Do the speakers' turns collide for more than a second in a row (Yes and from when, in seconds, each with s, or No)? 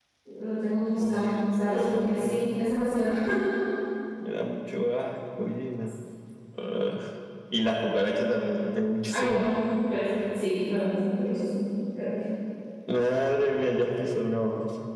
Yes, from 1.0 s